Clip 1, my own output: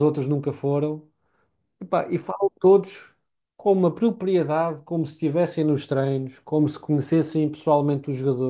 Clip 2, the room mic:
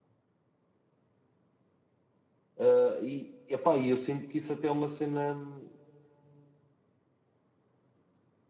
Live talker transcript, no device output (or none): Ah, e, epá, e eu sinto que isso até é uma cena, hum,